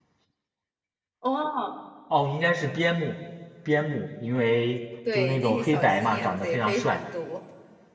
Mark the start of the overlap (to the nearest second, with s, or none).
5 s